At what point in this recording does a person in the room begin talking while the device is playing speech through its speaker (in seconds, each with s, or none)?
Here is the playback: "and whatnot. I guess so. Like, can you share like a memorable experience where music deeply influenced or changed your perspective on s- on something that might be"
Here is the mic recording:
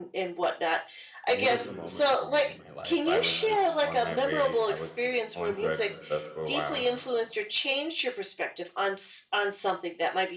1.3 s